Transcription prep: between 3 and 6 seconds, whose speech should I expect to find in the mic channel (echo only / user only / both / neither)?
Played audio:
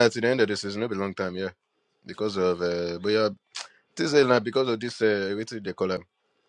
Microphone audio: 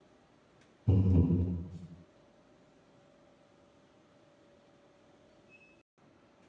neither